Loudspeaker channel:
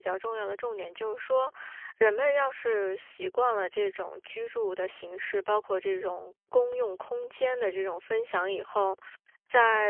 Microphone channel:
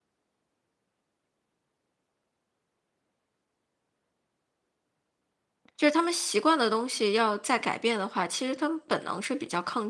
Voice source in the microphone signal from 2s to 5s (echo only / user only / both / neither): neither